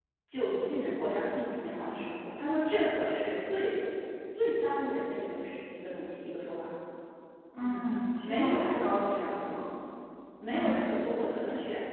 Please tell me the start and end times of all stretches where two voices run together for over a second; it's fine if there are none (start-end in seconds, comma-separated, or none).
8.2-9.6